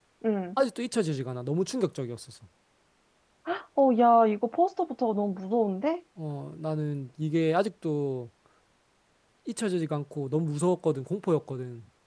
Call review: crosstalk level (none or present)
none